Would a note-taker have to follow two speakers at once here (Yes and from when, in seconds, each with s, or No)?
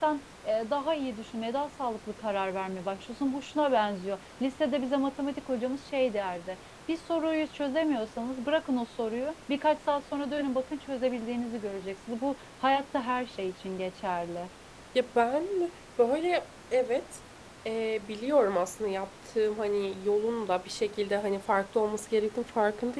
No